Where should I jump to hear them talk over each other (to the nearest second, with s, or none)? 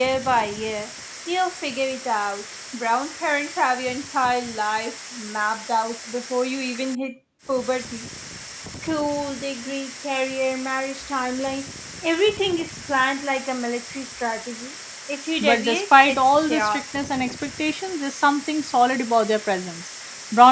15 s